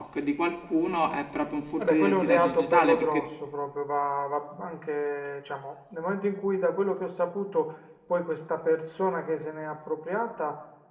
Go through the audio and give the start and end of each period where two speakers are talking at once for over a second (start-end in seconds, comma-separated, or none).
1.8-3.2